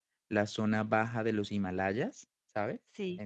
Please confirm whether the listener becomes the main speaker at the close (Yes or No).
No